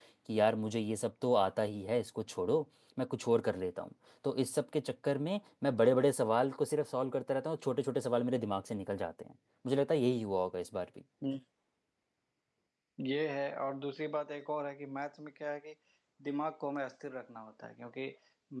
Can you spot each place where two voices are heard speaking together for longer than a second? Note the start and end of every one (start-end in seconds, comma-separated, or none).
none